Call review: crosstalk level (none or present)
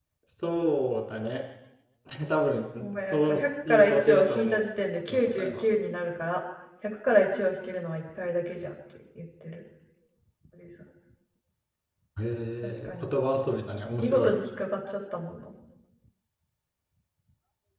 present